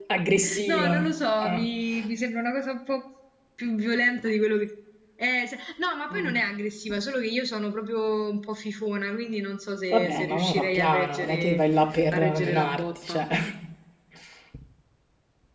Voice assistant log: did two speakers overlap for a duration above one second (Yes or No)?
Yes